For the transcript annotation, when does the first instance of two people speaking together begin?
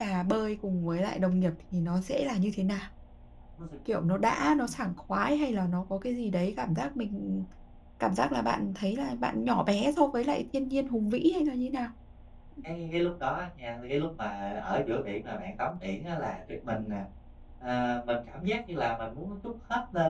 none

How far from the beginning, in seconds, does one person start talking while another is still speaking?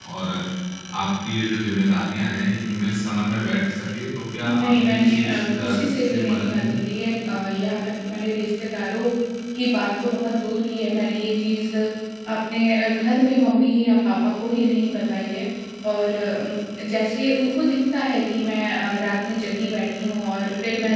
4.4 s

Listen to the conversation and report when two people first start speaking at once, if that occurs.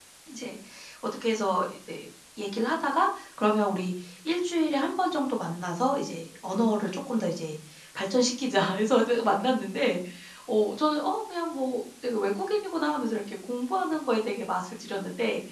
none

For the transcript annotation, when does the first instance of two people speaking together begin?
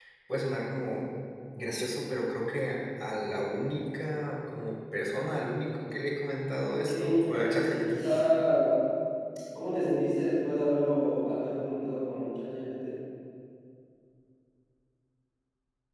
6.6 s

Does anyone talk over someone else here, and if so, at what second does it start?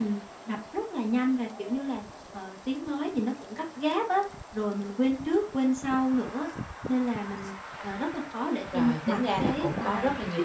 8.7 s

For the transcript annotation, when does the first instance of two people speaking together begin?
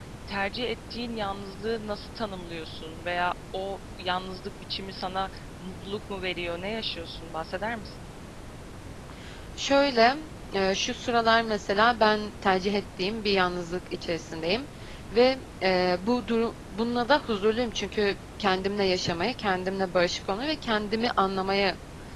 none

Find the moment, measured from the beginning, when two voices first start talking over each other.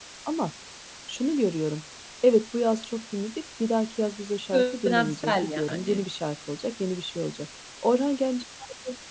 4.5 s

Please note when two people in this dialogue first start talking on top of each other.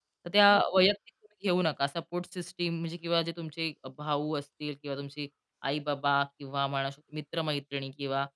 none

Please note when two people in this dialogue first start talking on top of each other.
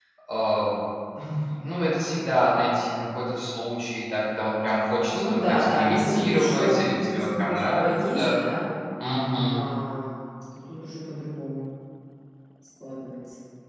5.1 s

